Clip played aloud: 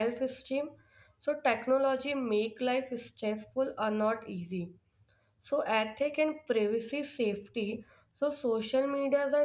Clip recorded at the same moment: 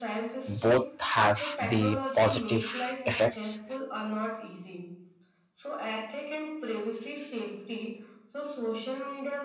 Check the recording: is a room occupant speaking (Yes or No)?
Yes